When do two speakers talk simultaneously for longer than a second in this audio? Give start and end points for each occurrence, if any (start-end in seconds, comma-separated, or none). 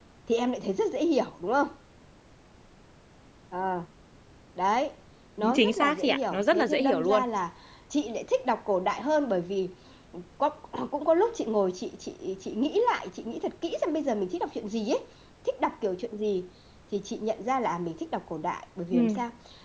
5.5-7.2